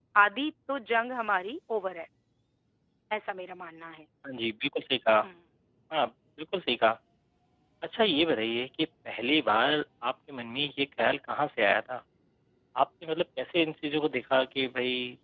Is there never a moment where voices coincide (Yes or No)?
Yes